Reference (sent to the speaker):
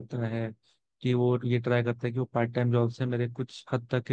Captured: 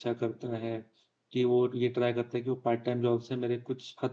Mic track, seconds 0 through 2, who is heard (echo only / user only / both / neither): echo only